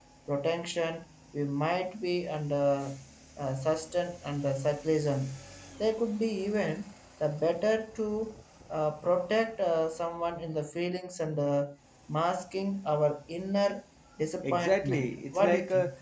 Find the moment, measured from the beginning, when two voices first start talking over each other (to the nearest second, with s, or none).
14 s